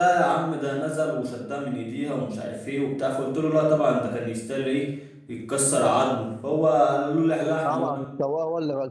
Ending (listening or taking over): taking over